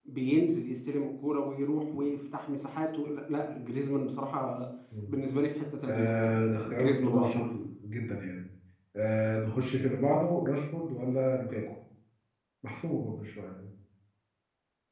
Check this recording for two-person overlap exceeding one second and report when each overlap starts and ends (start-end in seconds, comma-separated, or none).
5.9-7.3